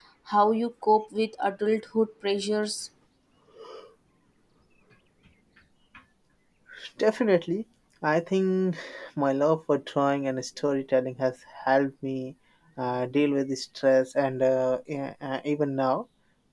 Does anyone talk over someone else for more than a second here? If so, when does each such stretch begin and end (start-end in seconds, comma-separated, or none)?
none